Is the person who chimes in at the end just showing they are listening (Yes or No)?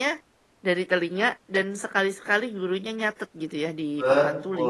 No